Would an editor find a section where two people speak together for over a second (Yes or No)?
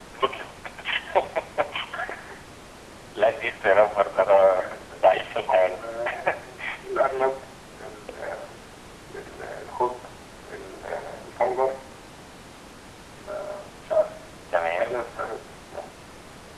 No